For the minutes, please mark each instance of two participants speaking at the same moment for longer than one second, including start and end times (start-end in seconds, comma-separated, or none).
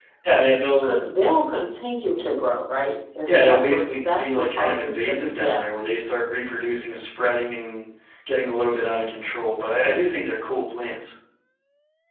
3.3-5.7